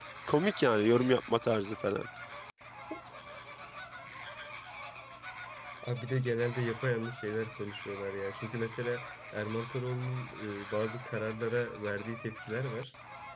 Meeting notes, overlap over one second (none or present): none